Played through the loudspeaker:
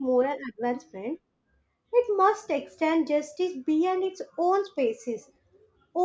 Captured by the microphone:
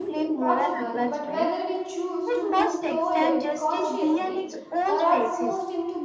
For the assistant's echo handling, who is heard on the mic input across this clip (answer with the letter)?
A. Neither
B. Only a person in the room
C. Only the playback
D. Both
D